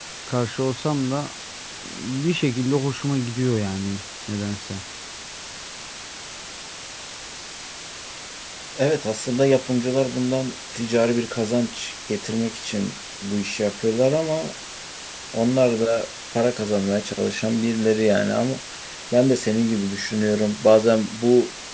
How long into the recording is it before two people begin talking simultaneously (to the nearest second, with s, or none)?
none